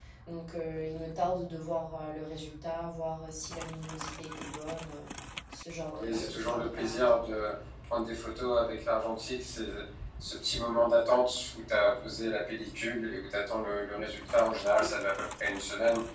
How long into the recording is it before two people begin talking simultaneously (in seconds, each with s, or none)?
6.0 s